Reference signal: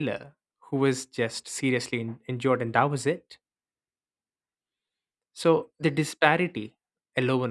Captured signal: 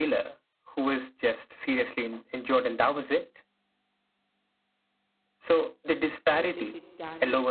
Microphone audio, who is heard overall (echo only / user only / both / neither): both